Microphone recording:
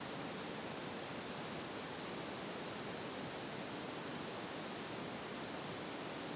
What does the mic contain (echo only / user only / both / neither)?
neither